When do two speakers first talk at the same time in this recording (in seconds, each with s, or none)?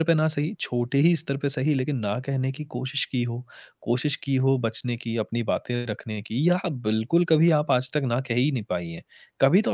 none